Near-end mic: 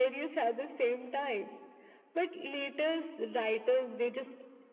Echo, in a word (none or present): present